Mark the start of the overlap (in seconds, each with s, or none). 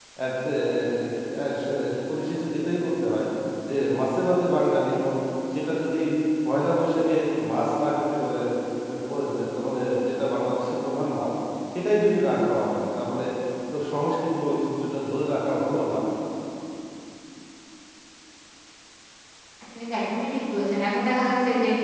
none